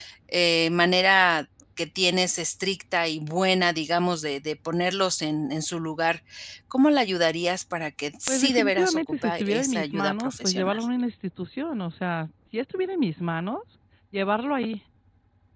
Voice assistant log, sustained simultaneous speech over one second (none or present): present